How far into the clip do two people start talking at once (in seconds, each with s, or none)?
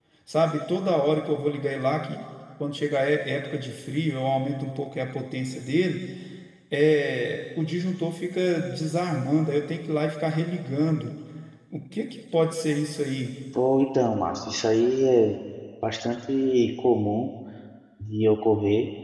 none